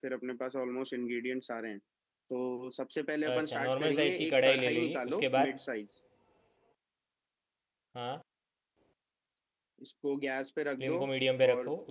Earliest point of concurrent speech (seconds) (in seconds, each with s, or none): 3.3 s